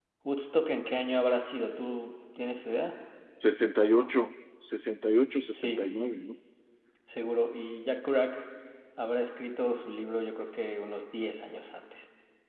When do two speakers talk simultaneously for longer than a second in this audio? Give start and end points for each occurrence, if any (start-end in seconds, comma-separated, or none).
none